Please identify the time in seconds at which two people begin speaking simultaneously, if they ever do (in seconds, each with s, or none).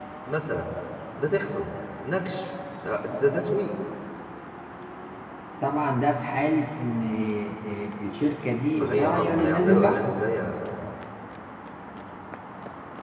8.7 s